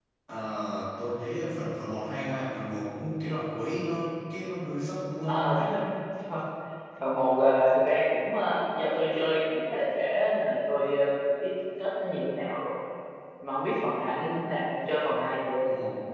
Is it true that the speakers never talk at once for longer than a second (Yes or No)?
Yes